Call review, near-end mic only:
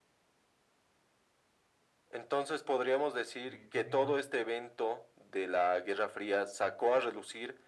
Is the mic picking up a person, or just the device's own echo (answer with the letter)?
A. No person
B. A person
B